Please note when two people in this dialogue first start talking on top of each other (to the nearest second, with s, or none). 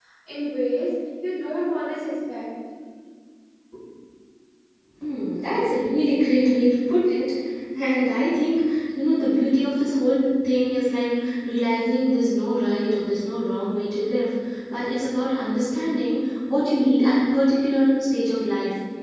none